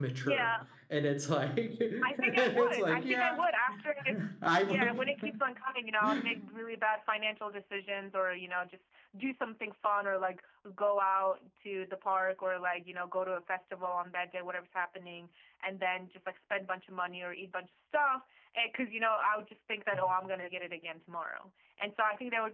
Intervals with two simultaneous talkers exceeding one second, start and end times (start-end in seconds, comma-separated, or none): 2.0-3.3